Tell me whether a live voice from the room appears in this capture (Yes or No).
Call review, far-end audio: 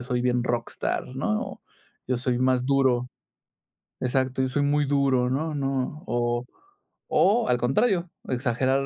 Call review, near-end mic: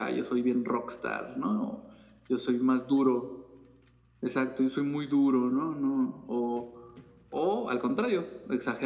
No